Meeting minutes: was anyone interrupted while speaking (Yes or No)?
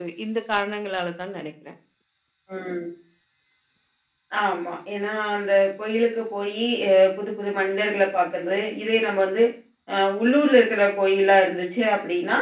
No